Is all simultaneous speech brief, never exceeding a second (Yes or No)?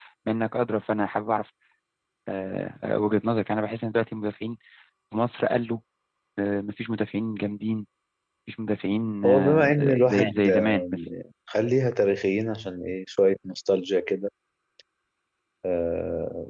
No